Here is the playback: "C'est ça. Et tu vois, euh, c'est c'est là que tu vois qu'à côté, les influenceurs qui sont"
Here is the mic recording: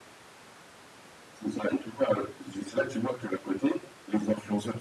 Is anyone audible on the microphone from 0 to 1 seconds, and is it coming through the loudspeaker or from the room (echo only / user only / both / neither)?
neither